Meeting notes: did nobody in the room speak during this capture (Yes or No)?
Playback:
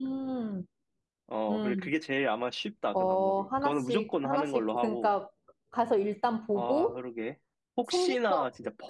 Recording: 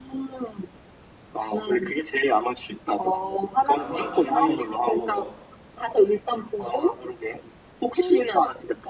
No